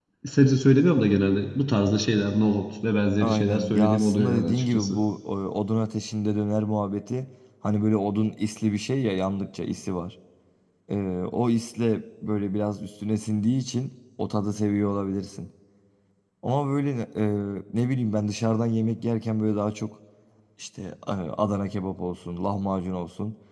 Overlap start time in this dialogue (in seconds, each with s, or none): 3.2 s